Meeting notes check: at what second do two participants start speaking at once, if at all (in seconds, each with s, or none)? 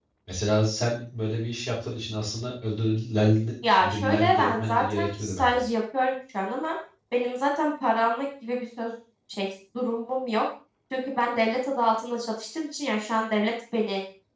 3.6 s